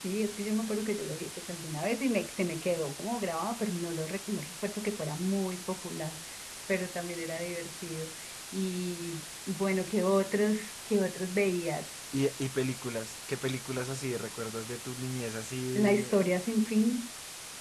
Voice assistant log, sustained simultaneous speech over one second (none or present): none